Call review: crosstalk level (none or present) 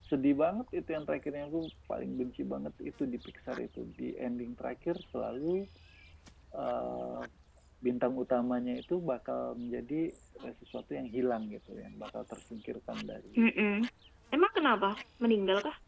none